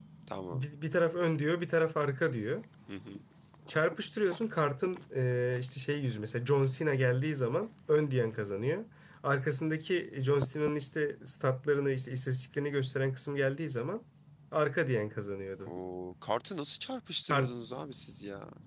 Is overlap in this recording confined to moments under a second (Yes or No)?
Yes